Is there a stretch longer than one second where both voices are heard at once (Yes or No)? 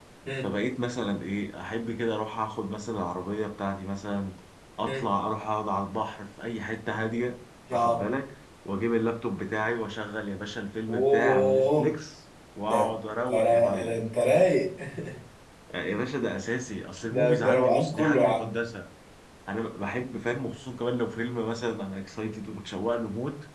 Yes